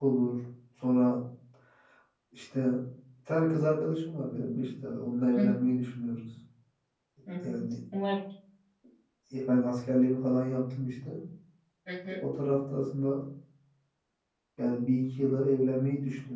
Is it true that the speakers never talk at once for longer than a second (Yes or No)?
Yes